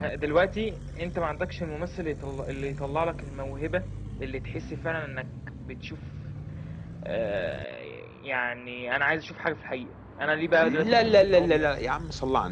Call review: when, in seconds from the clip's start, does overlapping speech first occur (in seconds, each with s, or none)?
10.6 s